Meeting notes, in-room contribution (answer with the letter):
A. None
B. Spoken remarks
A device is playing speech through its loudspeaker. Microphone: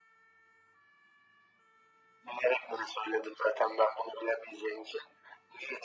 A